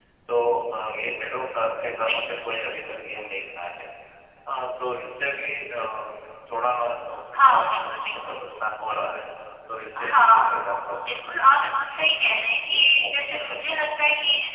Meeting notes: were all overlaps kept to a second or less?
No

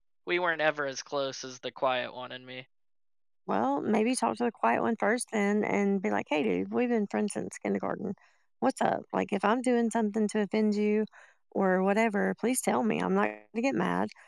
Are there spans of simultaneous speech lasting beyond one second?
No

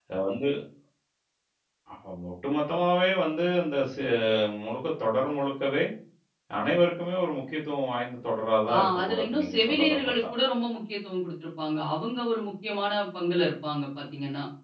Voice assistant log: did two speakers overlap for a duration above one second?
Yes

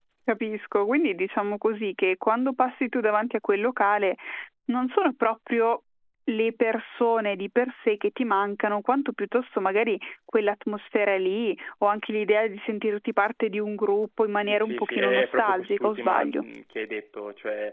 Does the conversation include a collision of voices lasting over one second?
Yes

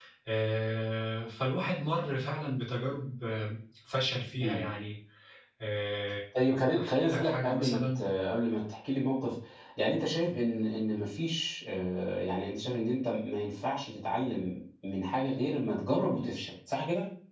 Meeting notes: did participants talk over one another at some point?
Yes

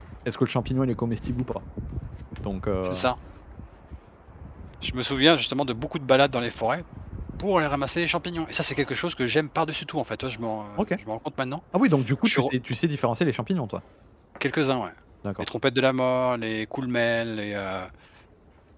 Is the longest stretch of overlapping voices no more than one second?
Yes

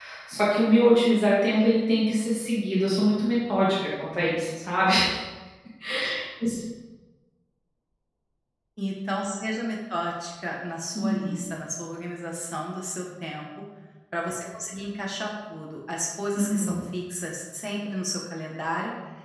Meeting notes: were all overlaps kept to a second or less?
Yes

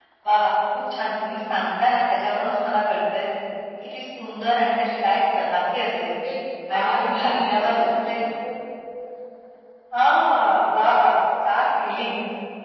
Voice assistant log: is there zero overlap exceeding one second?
No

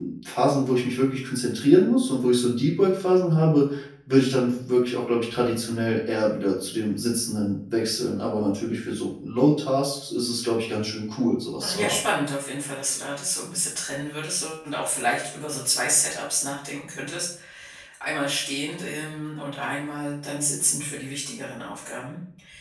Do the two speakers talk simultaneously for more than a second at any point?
No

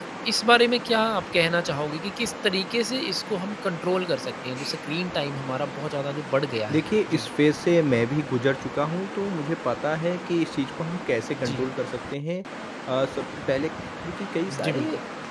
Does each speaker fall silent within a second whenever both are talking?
Yes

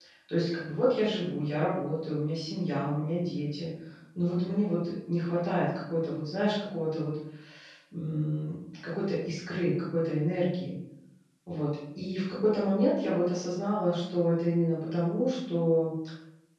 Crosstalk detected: No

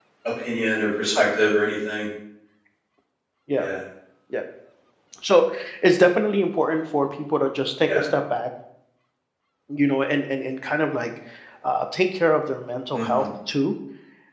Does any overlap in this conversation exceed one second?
No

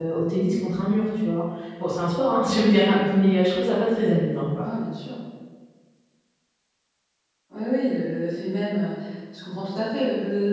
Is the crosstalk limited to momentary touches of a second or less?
Yes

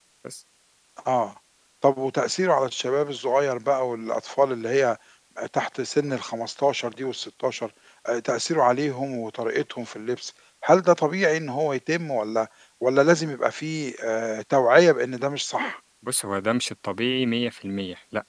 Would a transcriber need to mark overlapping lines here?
No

